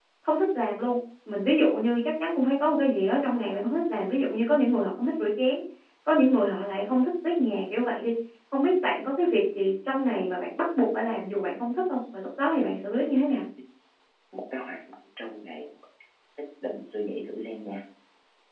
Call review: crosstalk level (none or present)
none